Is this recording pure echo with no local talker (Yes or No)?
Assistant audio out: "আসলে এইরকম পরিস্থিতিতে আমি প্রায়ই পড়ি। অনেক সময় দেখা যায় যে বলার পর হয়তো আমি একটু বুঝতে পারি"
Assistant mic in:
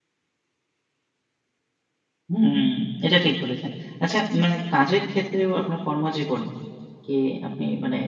No